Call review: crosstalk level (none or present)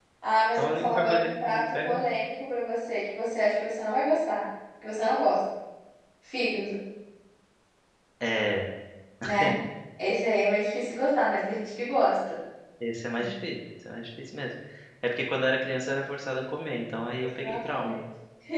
present